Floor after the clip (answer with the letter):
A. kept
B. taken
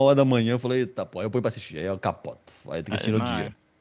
B